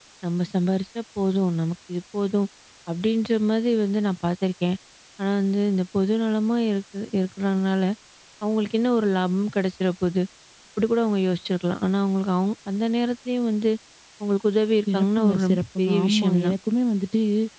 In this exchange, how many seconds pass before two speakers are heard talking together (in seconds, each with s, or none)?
14.9 s